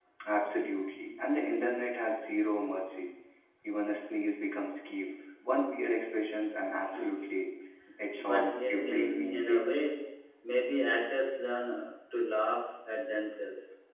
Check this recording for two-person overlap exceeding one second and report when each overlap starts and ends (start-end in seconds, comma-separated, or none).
8.2-9.8